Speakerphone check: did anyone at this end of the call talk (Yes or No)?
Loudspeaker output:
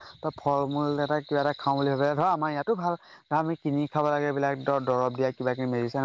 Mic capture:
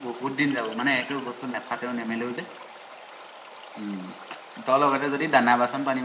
Yes